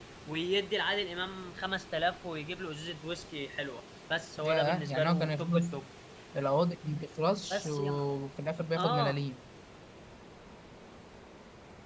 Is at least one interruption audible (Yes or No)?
Yes